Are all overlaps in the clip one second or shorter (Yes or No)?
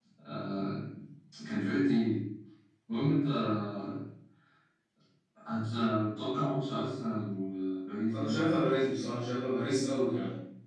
Yes